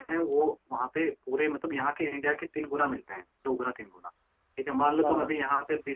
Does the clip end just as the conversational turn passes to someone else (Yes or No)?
No